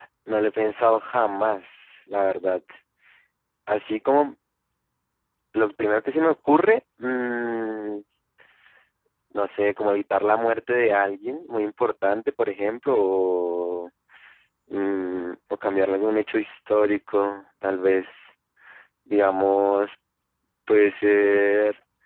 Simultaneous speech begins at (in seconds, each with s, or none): none